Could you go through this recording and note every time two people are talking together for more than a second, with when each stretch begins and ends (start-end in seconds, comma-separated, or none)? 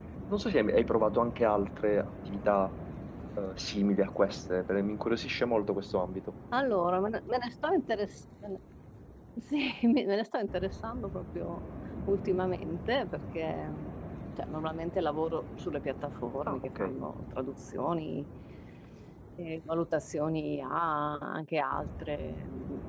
none